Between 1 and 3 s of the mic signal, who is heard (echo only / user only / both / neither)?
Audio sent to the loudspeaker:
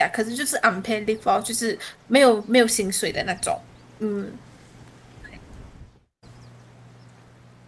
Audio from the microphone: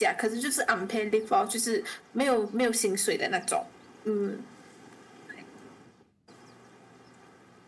echo only